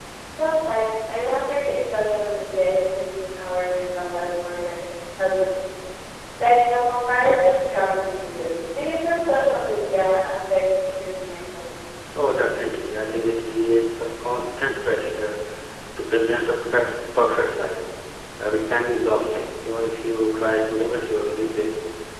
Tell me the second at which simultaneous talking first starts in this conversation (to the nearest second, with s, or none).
none